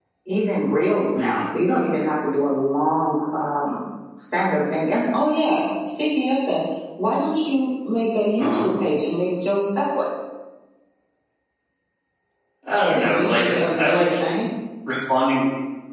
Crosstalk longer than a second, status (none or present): present